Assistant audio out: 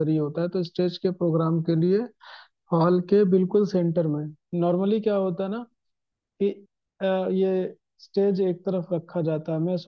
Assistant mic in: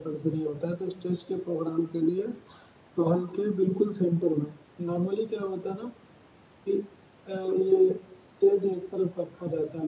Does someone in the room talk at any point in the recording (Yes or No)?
No